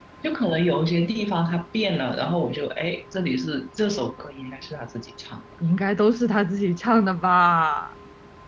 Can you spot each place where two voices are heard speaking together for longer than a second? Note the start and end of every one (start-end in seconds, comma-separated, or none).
none